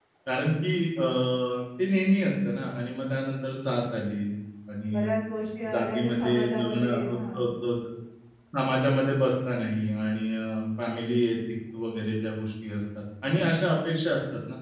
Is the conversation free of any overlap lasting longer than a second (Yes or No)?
No